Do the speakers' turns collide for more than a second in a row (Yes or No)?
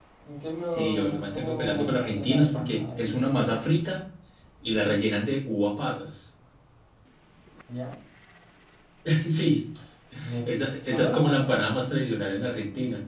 Yes